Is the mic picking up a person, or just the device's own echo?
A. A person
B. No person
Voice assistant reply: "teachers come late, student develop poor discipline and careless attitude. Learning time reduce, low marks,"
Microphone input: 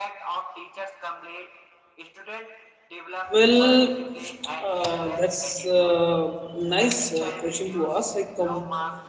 A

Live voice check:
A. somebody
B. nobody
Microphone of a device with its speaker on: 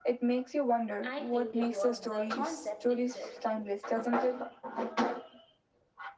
A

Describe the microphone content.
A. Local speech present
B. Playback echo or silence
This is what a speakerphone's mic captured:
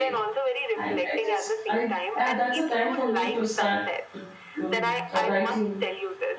A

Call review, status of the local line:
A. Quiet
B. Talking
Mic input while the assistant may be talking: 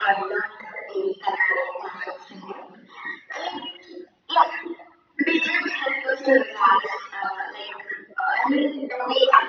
A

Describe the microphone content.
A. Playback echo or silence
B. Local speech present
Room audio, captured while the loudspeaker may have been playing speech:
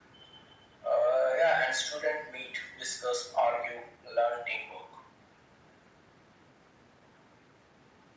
A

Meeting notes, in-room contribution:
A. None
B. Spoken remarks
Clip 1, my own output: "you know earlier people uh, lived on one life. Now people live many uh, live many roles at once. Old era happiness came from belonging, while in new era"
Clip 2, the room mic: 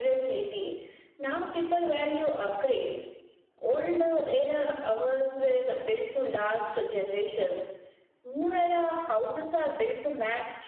B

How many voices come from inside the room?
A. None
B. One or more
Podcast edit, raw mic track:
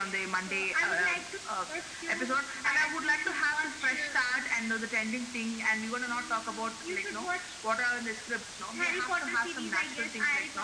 A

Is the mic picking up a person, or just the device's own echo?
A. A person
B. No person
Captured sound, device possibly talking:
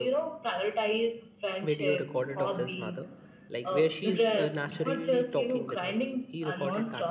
A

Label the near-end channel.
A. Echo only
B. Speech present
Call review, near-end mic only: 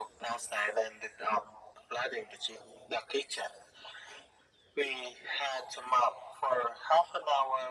A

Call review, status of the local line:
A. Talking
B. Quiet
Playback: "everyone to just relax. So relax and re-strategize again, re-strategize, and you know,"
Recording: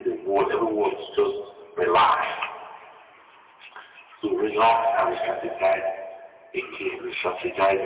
B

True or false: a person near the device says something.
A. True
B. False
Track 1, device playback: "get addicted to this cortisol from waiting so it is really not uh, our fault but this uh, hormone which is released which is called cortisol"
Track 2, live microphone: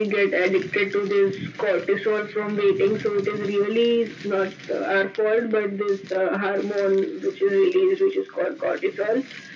B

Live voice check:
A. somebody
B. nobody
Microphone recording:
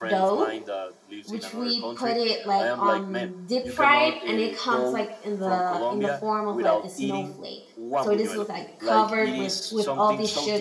A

